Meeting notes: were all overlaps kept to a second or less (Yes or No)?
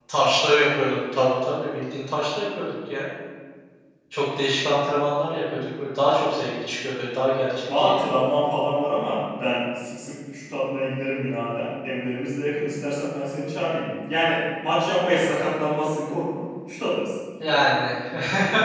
Yes